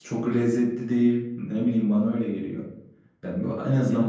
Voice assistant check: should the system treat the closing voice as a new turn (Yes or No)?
No